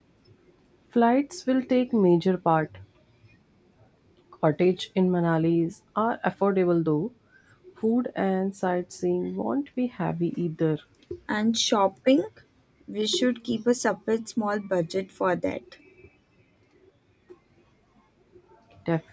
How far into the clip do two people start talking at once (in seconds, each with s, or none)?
none